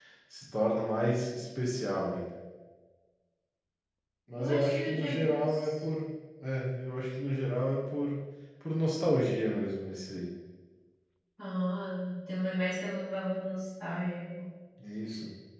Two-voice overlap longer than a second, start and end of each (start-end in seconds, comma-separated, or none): 4.4-5.8